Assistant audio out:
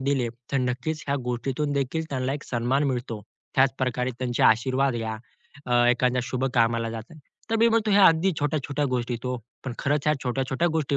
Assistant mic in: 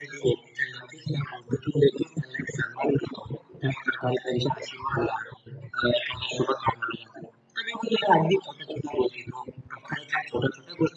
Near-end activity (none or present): none